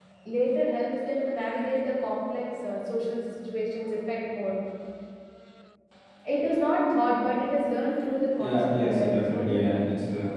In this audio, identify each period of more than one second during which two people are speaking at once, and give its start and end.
8.4-9.9

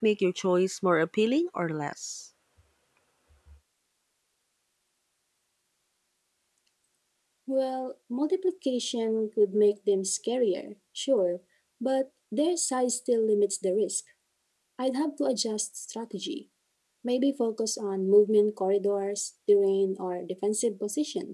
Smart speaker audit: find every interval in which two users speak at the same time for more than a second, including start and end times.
none

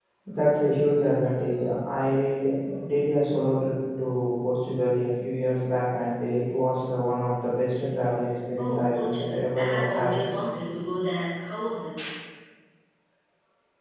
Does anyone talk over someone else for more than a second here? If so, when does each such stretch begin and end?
8.6-10.2

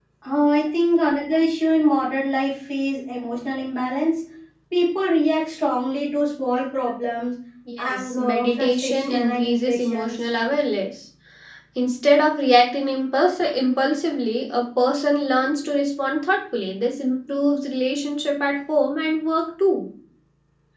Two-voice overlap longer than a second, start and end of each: 7.8-10.2

